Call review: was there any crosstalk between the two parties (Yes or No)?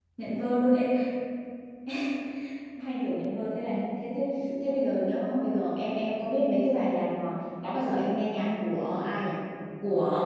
No